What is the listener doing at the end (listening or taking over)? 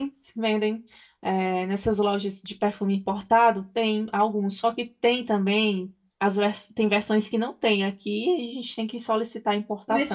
taking over